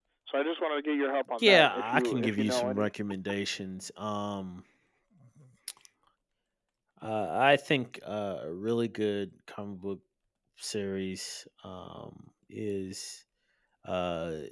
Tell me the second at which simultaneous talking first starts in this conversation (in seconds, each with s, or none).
1.4 s